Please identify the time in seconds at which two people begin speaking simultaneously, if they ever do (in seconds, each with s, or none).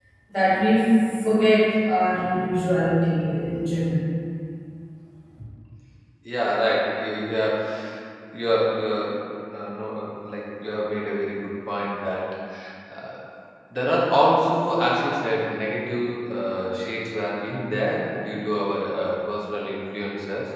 none